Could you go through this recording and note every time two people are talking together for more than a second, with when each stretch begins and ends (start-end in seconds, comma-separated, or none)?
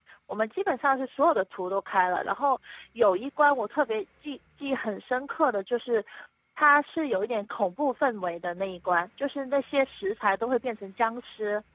none